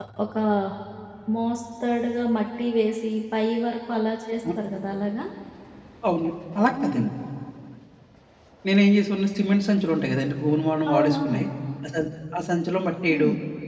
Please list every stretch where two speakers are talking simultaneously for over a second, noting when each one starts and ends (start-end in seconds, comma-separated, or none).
none